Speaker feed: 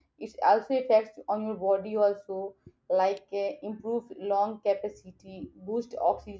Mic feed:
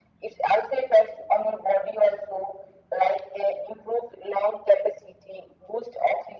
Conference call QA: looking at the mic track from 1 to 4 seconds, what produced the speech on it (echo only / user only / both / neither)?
echo only